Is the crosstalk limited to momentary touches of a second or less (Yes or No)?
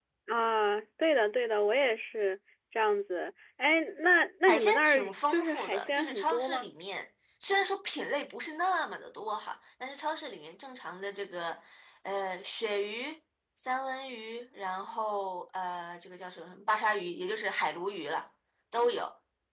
No